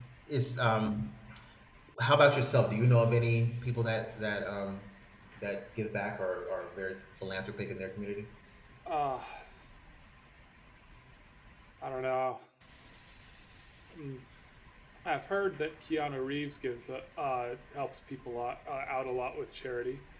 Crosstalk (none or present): none